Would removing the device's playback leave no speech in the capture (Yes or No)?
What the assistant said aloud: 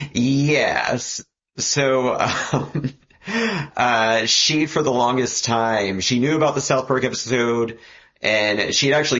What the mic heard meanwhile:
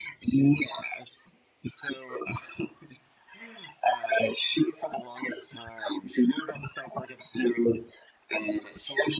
Yes